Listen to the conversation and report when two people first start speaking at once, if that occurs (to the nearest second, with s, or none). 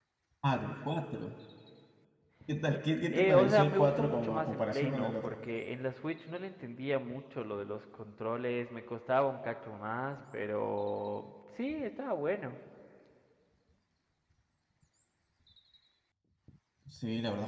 3 s